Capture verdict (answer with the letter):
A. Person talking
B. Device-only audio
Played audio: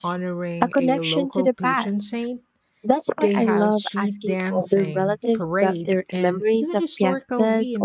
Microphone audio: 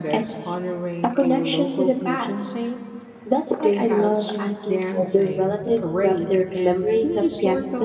B